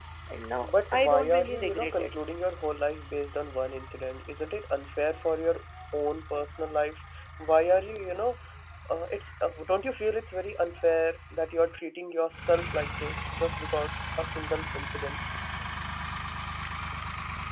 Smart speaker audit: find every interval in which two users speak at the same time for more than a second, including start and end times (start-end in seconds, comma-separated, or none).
0.6-2.1